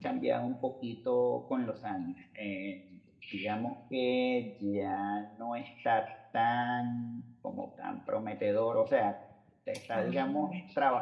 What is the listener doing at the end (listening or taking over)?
listening